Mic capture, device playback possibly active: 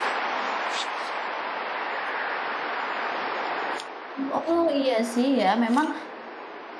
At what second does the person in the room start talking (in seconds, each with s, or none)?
4.2 s